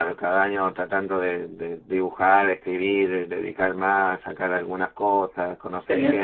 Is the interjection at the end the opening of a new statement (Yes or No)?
Yes